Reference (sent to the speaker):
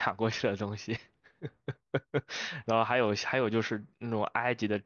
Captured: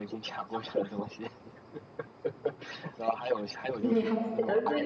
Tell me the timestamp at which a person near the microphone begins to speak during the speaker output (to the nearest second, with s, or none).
4 s